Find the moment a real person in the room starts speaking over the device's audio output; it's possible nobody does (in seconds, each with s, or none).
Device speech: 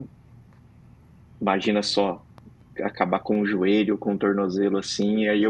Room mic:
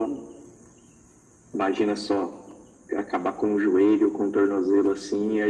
none